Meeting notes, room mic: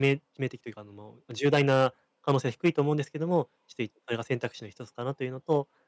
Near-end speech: present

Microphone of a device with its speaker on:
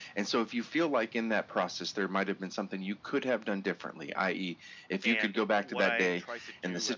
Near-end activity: present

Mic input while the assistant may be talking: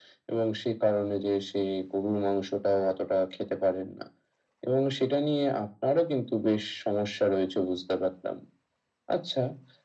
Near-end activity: none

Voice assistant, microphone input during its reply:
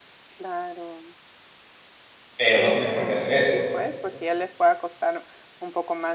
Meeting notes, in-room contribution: present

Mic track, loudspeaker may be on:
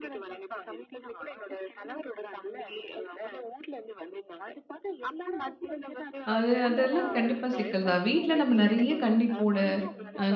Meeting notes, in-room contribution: present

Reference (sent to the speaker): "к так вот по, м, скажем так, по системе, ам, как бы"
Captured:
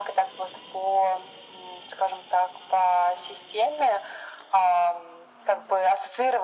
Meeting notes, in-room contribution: none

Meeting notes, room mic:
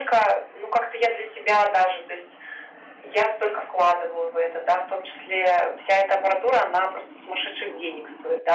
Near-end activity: none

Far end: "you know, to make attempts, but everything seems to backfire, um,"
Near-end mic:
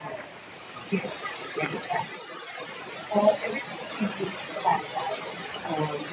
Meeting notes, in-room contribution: none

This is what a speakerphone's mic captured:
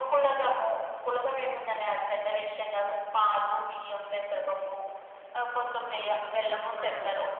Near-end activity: present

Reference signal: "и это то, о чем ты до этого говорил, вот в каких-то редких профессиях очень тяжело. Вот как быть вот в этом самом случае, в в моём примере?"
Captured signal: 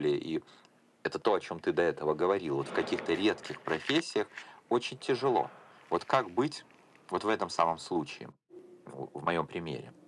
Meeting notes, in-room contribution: none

